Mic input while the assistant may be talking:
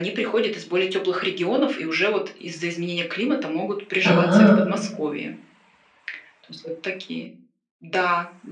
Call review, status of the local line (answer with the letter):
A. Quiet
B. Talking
B